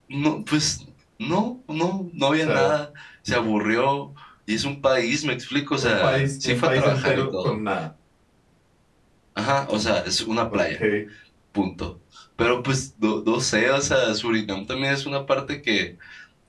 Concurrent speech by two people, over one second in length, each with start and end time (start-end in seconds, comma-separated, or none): 5.8-7.6